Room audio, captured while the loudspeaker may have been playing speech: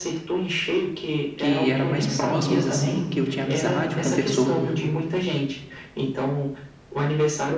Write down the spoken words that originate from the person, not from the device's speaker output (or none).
que era mais próximos assim, que eu tinha amizade, conversou